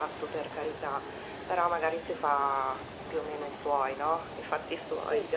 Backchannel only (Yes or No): Yes